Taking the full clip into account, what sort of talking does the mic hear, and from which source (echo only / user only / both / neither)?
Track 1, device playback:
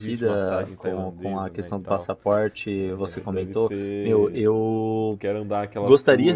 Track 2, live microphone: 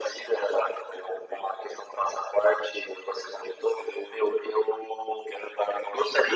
echo only